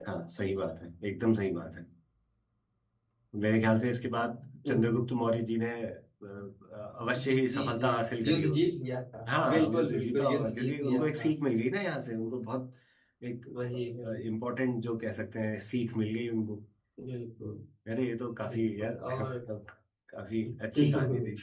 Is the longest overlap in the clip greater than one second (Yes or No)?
Yes